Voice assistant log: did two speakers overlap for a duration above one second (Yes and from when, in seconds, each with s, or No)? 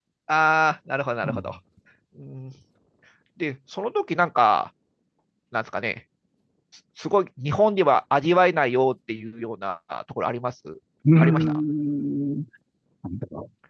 No